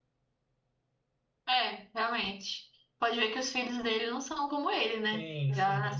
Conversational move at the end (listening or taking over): taking over